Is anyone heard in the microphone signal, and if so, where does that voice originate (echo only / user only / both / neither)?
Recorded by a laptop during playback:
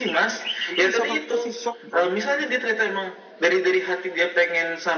both